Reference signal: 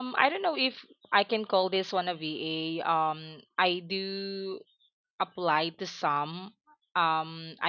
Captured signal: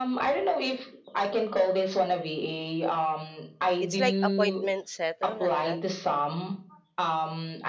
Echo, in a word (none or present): present